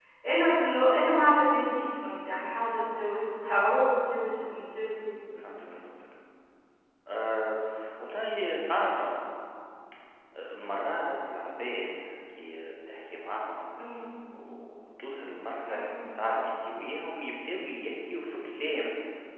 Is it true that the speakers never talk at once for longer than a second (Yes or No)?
Yes